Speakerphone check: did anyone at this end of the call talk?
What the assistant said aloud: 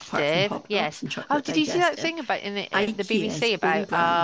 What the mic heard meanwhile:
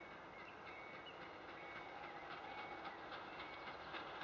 No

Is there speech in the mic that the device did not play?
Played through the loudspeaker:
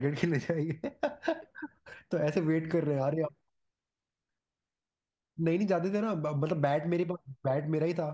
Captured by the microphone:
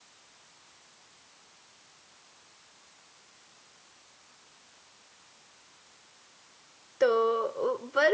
Yes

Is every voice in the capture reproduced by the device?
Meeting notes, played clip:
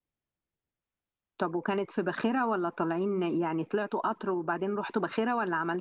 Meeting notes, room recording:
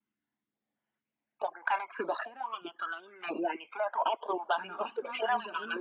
No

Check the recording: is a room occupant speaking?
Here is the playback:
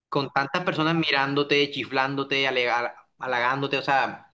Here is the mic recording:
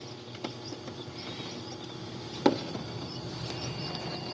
No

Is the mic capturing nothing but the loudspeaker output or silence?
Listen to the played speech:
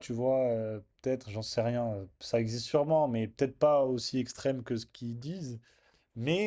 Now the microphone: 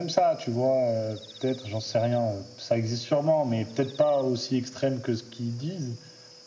Yes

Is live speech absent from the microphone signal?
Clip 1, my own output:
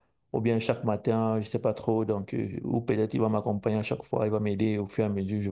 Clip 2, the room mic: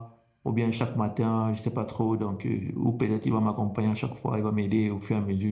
Yes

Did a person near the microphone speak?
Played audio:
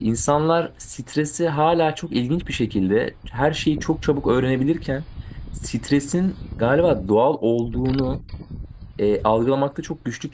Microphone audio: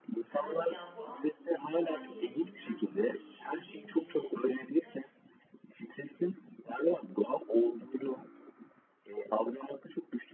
Yes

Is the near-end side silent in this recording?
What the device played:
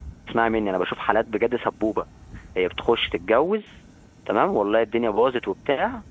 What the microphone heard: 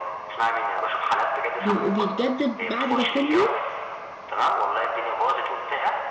No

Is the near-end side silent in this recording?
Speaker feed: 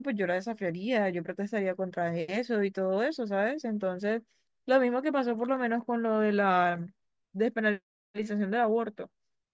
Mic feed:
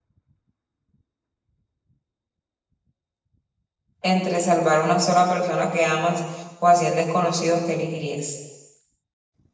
No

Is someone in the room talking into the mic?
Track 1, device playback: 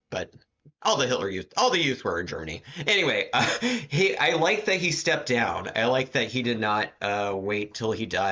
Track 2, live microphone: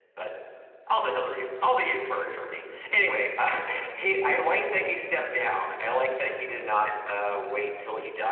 No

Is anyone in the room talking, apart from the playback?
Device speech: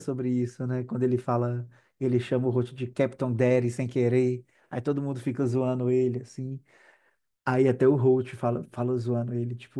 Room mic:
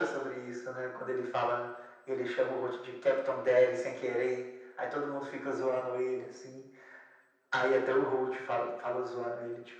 No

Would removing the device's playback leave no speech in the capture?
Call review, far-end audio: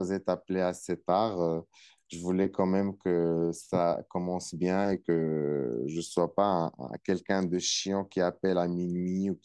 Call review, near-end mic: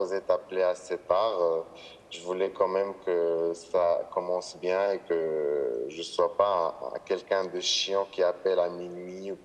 Yes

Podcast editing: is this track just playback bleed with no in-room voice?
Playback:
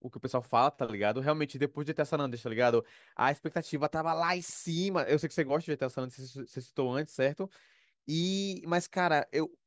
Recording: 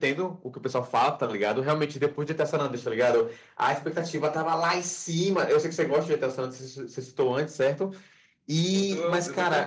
No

